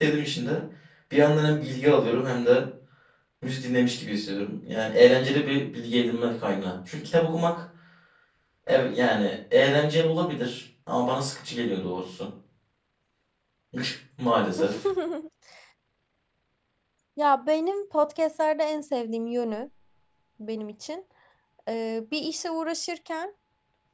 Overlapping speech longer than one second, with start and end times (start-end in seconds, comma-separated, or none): none